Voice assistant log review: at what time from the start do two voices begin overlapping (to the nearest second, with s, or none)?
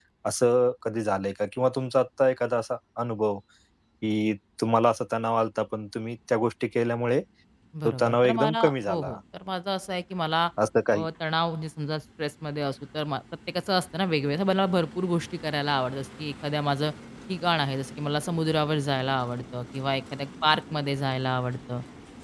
8 s